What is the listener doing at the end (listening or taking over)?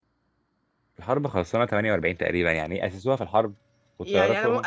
taking over